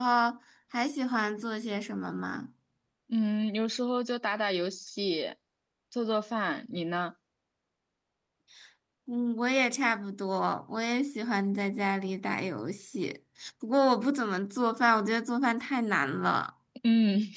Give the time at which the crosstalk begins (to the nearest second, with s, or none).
none